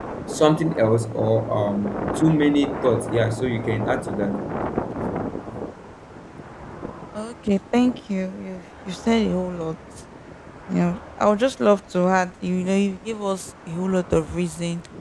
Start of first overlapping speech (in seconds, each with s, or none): none